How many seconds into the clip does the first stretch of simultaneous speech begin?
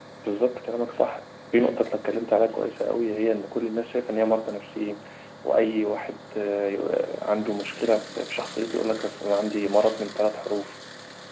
none

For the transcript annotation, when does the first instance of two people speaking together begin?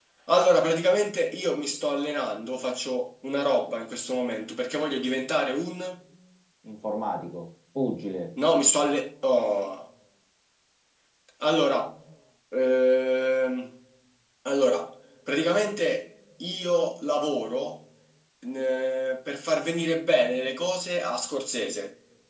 none

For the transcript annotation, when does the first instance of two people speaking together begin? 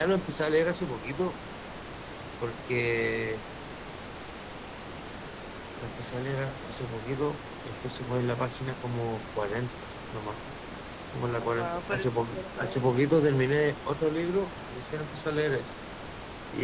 11.4 s

